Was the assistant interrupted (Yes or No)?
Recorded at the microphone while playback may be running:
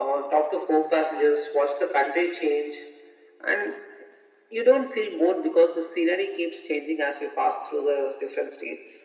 No